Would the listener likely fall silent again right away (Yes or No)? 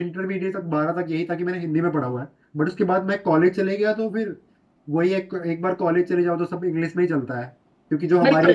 No